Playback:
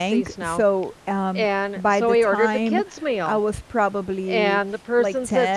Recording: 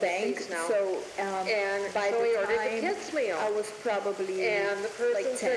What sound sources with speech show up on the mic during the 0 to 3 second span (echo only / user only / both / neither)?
echo only